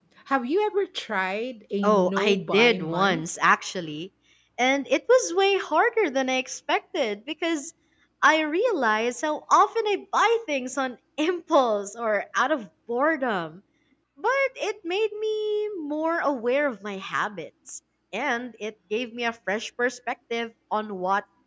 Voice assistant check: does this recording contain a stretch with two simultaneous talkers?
Yes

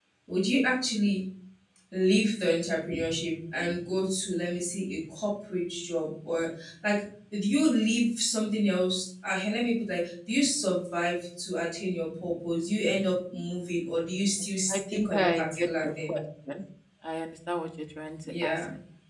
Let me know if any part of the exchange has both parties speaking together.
Yes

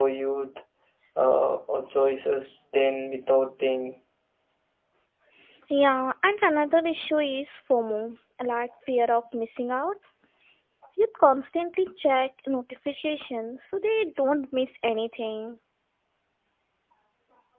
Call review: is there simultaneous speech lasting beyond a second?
No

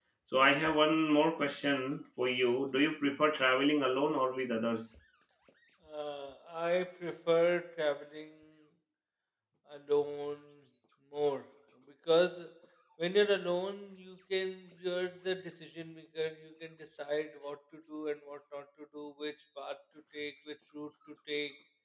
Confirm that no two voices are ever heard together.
Yes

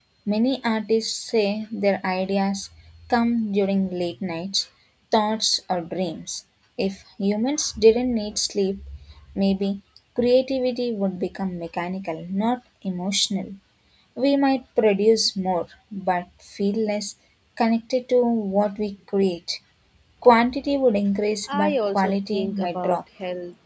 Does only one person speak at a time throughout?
No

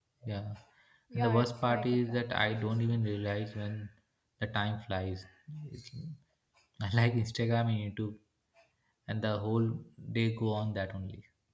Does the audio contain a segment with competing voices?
Yes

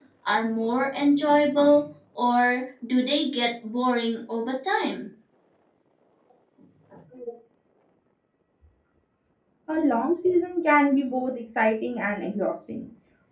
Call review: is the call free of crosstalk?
Yes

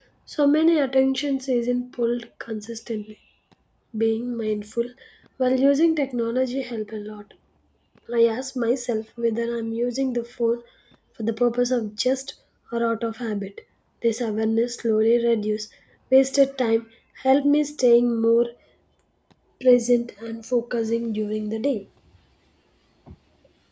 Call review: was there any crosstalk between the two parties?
No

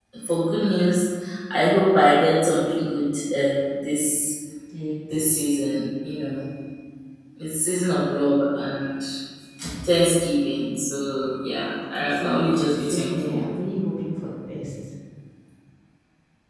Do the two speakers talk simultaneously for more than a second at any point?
Yes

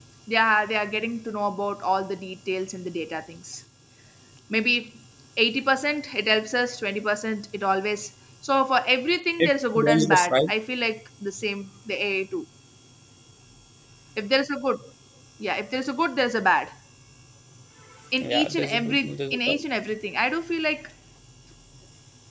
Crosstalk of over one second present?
Yes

